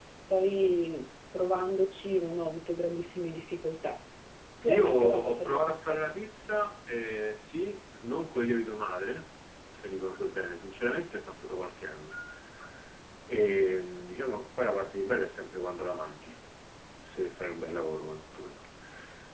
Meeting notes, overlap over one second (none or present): present